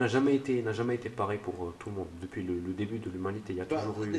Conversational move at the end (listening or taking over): taking over